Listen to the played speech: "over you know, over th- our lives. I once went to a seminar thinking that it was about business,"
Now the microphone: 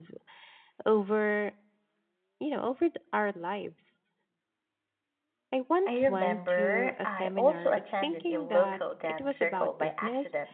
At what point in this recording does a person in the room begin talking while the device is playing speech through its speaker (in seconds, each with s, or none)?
5.9 s